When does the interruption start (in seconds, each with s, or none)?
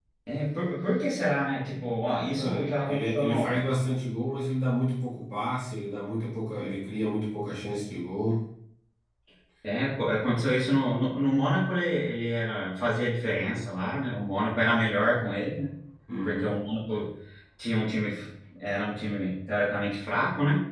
2.3 s